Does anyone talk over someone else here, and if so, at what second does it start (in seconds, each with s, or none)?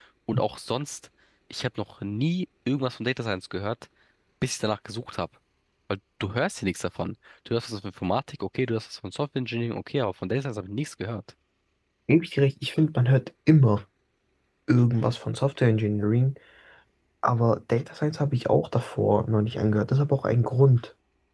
none